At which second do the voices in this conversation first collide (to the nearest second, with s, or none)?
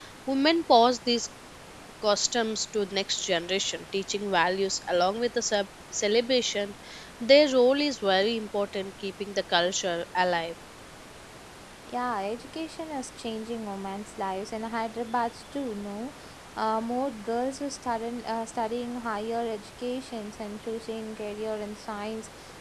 none